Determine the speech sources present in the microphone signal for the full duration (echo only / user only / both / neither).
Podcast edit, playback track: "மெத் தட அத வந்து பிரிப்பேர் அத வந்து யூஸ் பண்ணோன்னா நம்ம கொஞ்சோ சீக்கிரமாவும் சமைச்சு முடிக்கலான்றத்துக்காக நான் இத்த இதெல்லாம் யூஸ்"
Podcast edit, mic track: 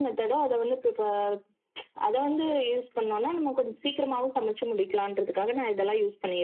echo only